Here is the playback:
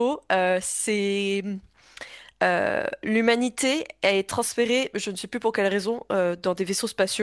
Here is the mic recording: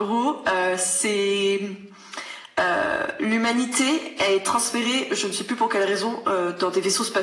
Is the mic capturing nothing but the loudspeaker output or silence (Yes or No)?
Yes